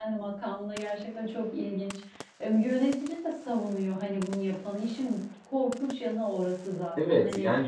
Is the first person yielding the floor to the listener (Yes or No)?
Yes